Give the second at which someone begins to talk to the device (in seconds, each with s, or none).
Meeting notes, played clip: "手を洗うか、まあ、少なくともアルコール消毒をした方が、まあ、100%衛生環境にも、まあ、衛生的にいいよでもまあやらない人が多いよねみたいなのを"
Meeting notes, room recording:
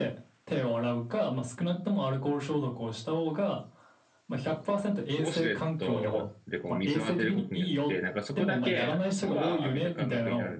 5.2 s